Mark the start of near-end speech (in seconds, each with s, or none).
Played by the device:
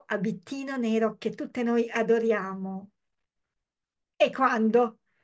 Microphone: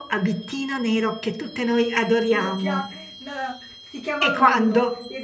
2.3 s